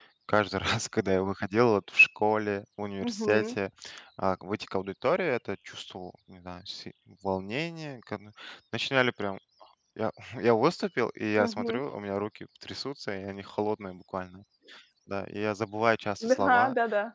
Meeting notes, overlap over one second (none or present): none